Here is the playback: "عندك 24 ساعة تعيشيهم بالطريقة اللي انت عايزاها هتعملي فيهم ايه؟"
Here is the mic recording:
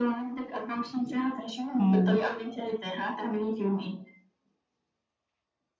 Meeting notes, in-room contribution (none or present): present